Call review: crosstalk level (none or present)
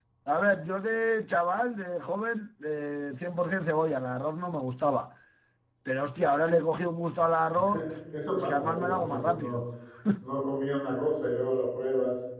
present